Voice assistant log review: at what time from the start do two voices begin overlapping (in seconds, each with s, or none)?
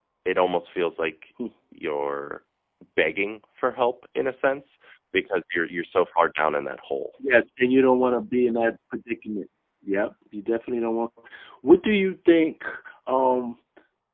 none